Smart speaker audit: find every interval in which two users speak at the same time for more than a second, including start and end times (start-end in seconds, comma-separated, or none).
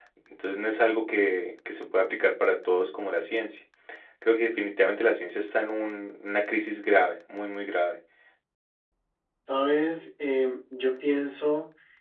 none